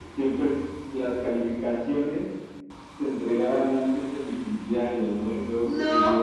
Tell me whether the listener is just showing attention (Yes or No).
Yes